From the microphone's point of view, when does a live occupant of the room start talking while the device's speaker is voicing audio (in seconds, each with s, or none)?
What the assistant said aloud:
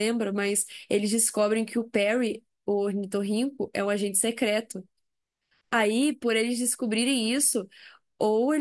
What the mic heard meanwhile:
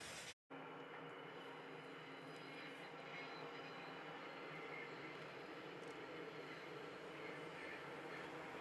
none